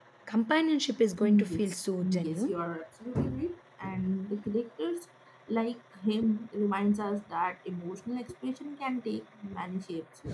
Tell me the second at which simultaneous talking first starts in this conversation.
1.2 s

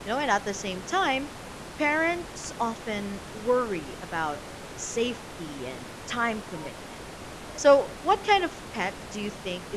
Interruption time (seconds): none

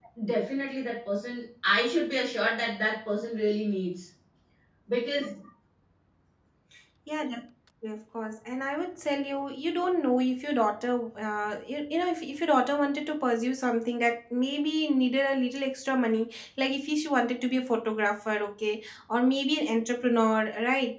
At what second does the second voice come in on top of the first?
none

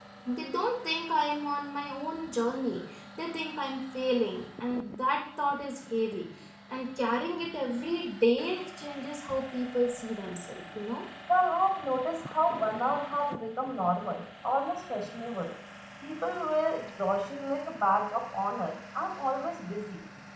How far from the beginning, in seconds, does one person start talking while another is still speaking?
none

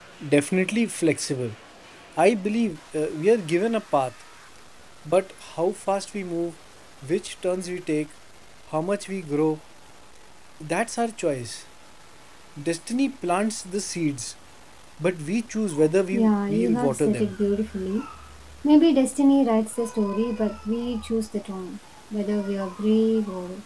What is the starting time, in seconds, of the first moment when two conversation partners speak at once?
16.1 s

